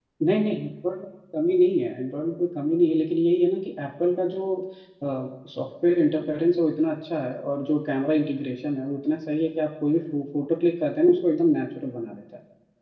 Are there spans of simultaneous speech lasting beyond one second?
No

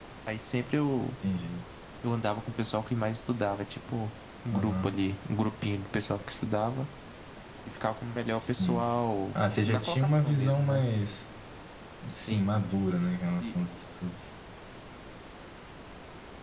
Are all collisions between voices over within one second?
No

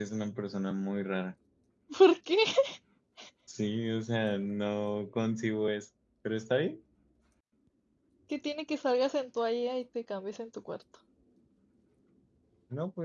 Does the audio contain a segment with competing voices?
No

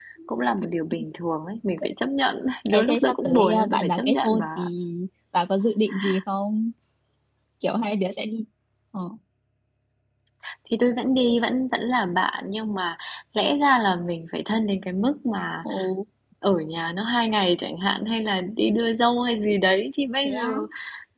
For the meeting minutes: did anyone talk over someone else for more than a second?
Yes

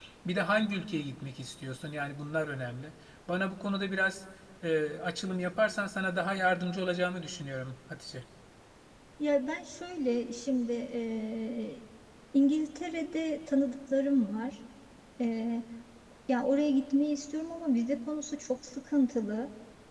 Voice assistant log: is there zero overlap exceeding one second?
Yes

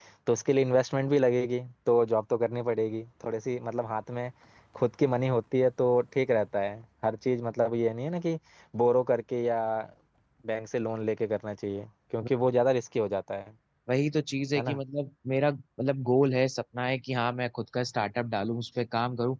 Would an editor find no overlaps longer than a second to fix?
Yes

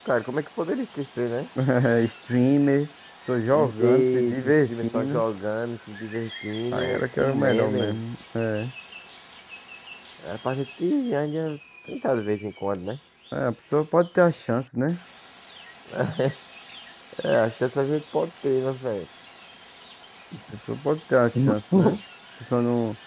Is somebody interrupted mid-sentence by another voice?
Yes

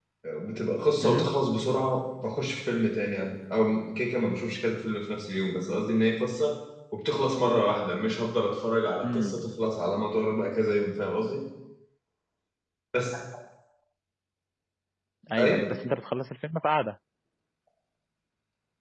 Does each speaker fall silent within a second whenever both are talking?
Yes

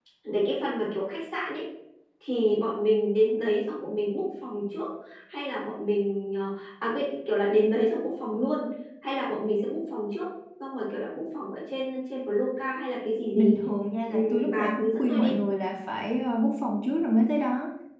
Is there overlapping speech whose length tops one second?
Yes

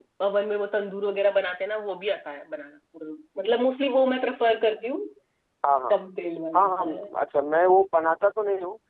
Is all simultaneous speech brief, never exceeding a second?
Yes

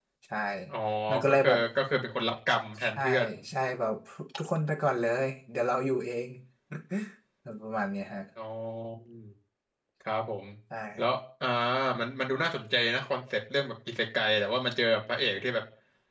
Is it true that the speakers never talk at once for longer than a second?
Yes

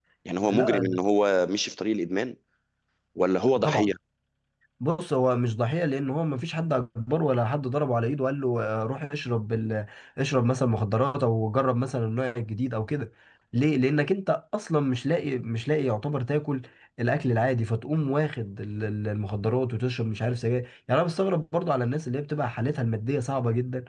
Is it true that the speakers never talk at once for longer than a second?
Yes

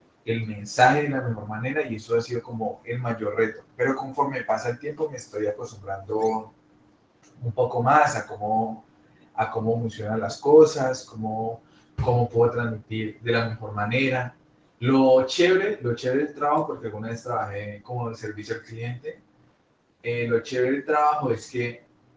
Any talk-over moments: No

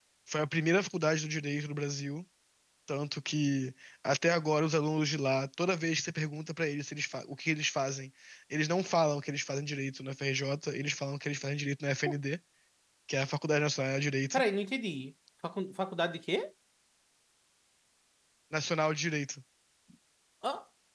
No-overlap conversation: Yes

